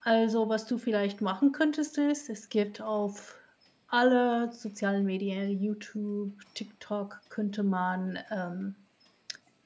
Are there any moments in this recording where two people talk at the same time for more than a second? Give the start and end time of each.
none

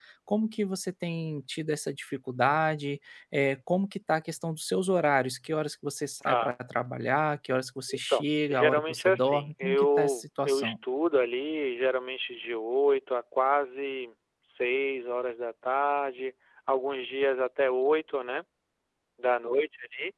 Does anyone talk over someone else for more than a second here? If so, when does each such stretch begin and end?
8.1-10.7

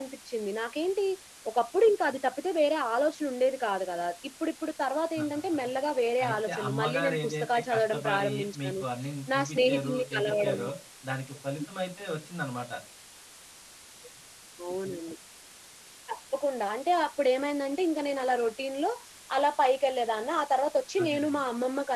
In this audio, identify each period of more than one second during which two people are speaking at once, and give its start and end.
6.2-8.8, 9.3-10.6

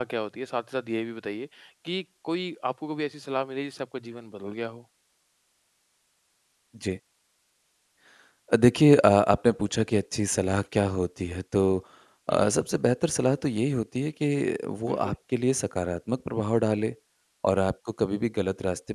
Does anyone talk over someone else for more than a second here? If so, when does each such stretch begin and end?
none

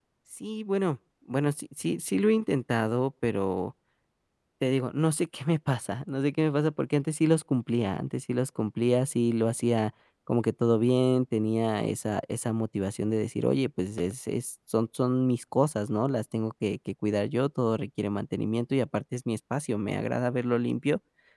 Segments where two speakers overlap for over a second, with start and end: none

